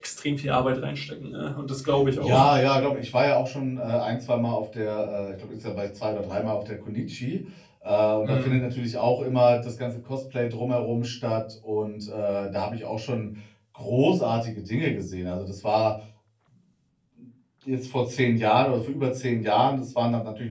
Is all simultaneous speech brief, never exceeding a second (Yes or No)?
Yes